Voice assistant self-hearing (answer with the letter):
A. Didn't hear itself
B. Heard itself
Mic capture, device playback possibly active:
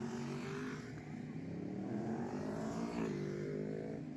A